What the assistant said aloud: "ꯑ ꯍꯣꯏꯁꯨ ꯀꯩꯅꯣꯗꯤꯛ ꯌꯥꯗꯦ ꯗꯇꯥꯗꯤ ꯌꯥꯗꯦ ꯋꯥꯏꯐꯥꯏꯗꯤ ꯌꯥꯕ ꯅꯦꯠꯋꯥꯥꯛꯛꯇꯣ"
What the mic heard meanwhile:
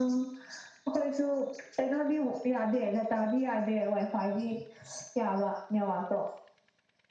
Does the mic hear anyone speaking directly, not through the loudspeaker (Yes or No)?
No